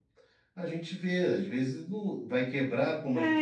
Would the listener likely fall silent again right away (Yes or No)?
No